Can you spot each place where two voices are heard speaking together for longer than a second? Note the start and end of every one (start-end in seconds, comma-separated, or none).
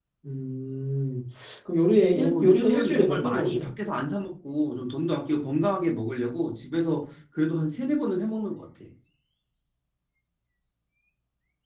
2.1-3.7